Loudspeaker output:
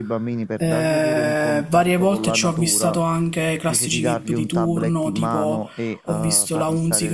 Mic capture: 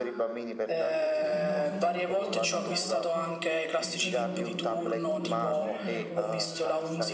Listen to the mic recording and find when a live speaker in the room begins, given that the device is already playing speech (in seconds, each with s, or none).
1.1 s